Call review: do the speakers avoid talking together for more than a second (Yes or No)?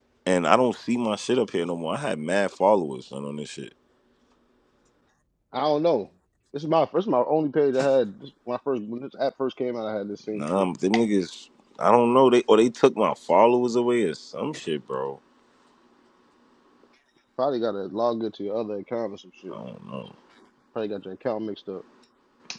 Yes